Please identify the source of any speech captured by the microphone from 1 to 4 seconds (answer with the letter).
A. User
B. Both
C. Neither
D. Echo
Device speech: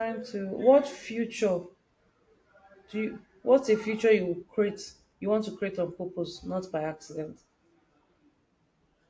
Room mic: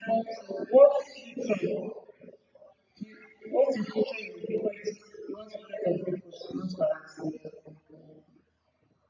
D